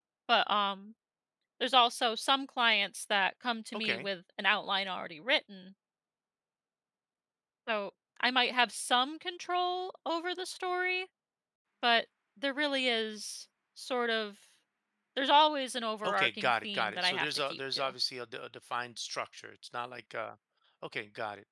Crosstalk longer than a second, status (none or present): present